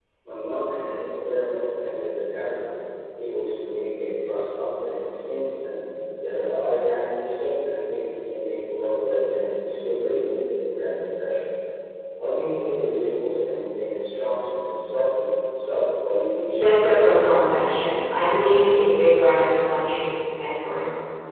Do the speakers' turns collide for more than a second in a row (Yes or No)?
Yes